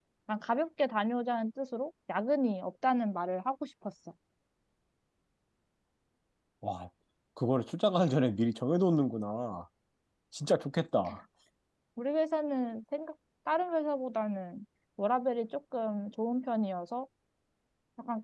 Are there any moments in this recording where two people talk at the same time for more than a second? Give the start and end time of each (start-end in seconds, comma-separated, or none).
none